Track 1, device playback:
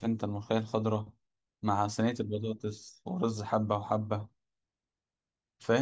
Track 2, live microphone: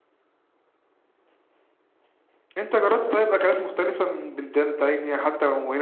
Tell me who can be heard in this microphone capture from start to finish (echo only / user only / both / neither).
user only